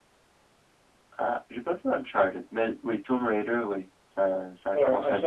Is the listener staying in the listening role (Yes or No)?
No